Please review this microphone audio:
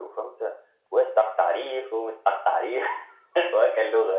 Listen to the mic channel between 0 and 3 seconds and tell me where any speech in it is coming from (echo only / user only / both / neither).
echo only